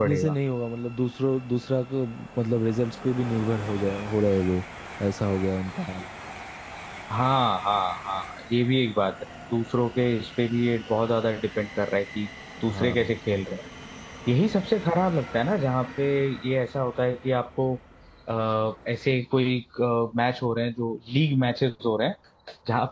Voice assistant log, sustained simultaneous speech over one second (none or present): none